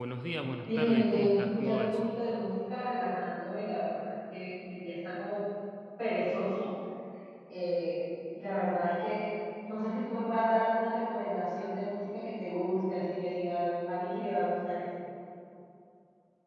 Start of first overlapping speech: 0.7 s

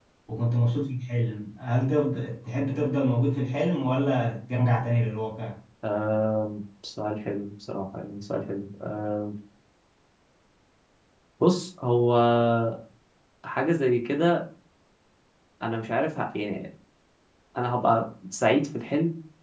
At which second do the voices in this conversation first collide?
none

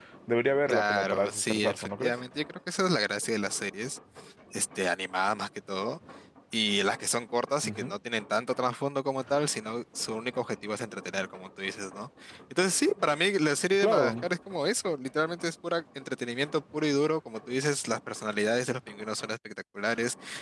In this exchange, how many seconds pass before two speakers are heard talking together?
0.7 s

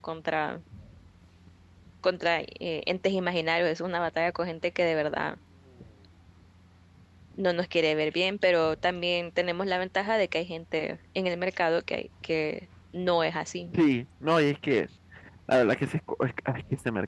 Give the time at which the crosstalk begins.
none

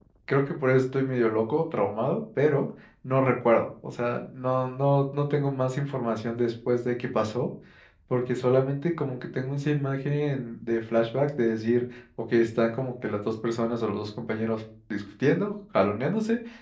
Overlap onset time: none

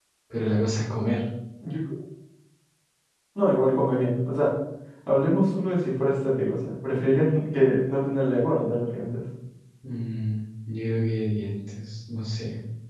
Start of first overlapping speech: none

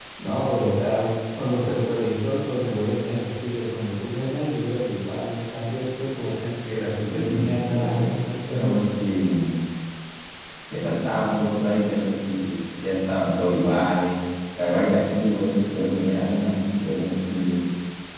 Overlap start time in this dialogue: 7.1 s

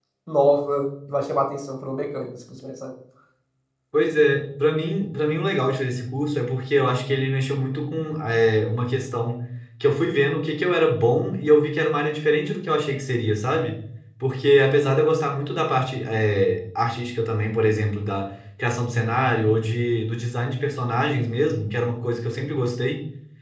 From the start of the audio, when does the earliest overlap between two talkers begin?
none

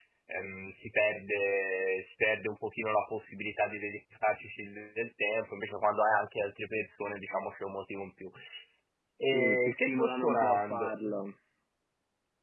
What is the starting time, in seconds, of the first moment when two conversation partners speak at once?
9.3 s

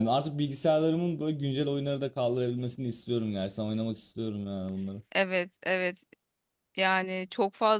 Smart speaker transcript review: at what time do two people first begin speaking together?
none

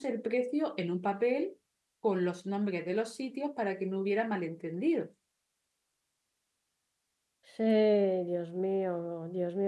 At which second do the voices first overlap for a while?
none

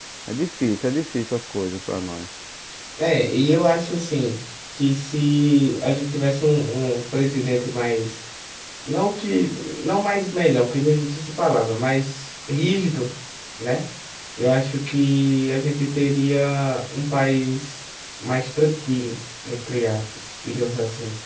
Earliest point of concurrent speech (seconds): none

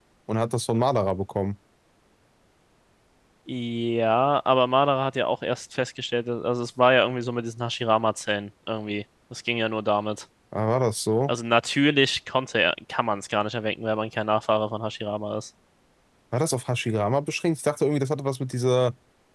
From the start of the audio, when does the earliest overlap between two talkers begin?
none

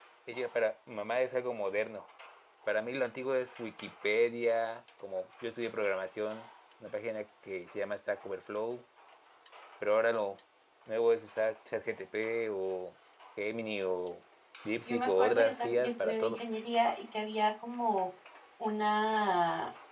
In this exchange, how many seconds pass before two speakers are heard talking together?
14.9 s

